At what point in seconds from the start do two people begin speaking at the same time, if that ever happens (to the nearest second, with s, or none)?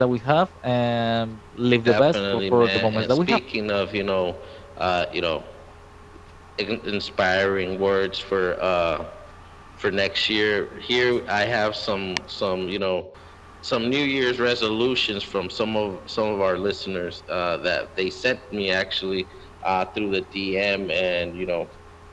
2 s